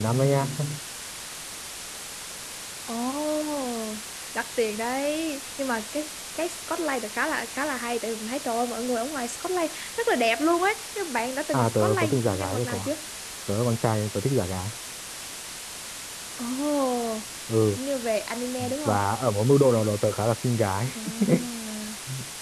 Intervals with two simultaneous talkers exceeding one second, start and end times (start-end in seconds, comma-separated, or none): 11.5-12.9